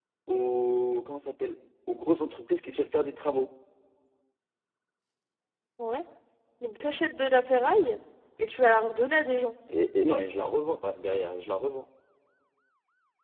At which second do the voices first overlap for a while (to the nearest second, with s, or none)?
none